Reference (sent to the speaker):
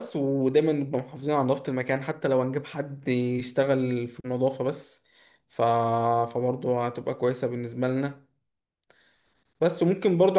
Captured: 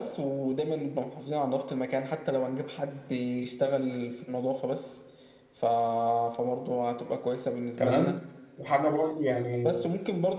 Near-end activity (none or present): present